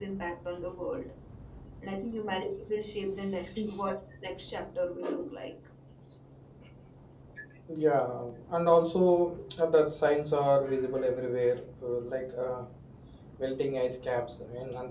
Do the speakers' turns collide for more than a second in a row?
No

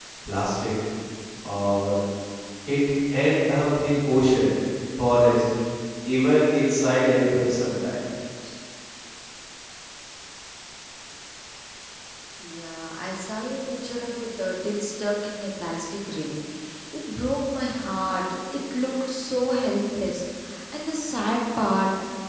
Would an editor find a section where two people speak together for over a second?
No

